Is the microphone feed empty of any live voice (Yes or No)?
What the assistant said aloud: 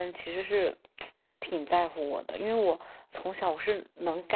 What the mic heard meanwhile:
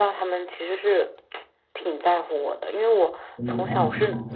No